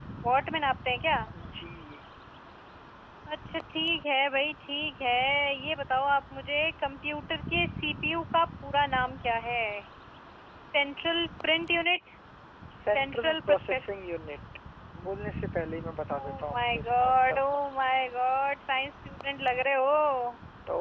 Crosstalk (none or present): present